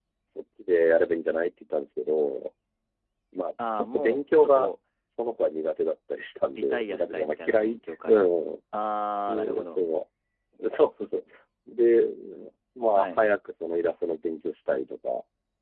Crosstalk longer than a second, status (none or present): present